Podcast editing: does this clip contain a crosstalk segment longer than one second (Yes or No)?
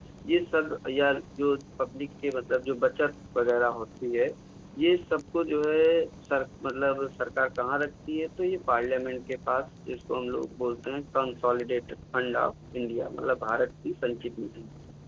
No